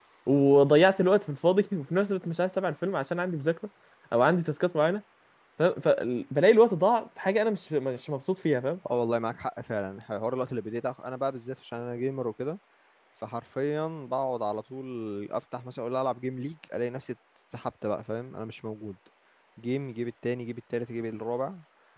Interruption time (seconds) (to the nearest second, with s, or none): none